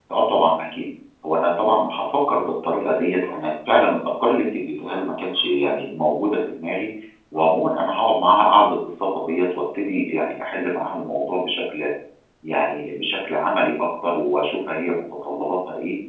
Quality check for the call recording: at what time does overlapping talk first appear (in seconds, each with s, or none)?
none